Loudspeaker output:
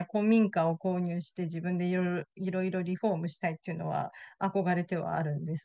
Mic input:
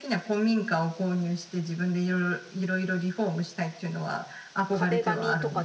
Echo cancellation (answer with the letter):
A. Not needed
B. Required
B